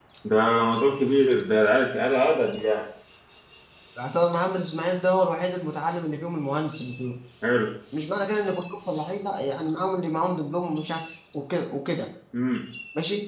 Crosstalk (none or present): none